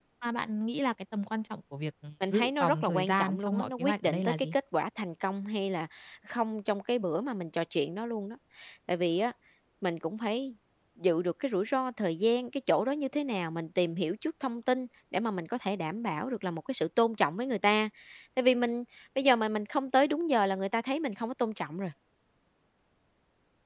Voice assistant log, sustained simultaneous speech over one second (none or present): present